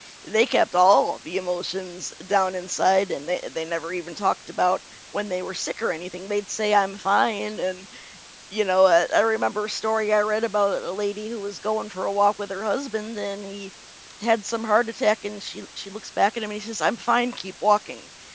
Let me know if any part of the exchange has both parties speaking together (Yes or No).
No